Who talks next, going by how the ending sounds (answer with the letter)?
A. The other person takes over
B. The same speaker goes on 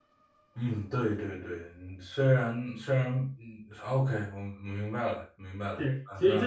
A